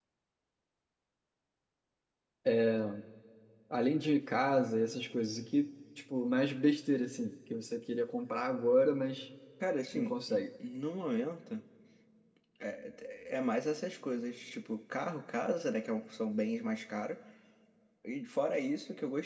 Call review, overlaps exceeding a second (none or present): none